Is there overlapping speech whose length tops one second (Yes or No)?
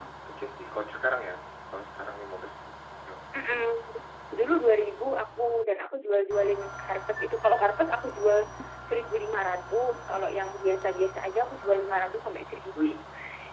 No